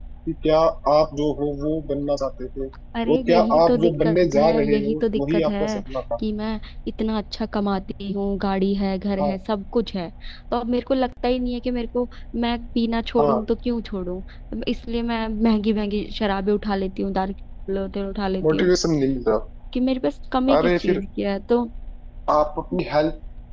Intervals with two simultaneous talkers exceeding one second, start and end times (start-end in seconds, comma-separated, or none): 3.1-5.8